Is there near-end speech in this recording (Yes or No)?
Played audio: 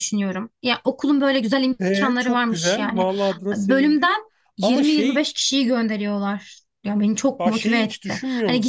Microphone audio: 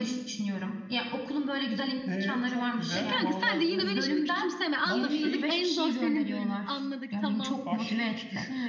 Yes